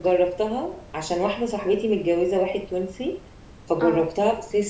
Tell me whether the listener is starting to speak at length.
No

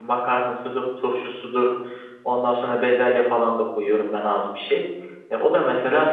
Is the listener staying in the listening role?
Yes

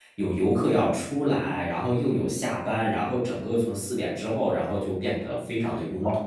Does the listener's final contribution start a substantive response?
Yes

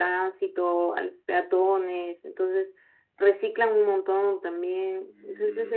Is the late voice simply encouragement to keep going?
Yes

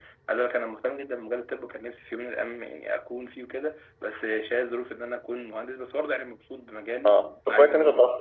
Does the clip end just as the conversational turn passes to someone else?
Yes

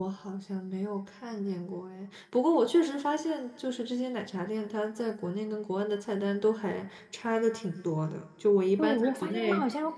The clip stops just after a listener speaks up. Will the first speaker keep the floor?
No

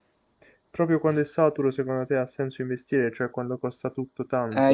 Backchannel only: No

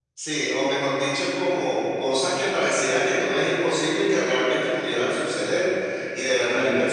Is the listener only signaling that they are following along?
Yes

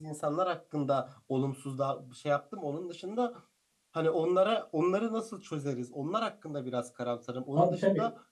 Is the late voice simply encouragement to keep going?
Yes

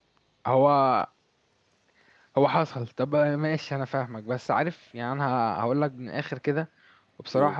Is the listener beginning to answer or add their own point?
No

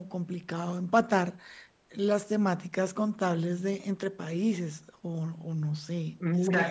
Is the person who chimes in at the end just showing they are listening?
No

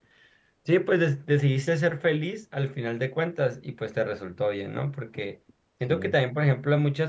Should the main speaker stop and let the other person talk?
No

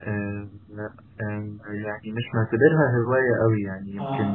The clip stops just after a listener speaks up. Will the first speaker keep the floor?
Yes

